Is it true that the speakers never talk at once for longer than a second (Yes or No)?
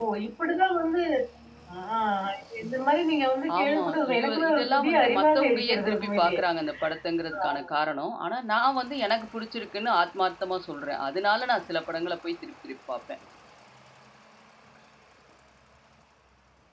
No